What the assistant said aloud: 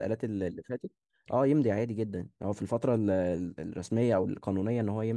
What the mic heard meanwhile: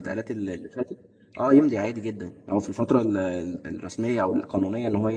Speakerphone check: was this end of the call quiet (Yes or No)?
Yes